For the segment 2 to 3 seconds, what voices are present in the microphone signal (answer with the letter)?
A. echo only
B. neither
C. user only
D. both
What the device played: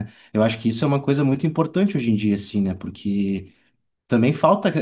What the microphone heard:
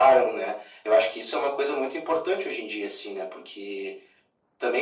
A